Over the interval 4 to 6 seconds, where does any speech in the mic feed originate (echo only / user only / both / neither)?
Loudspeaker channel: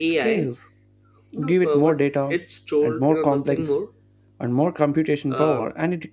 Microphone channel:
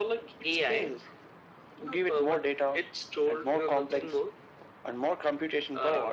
echo only